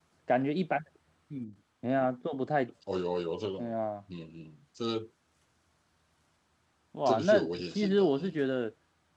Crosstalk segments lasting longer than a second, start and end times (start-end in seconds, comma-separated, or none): 7.0-8.4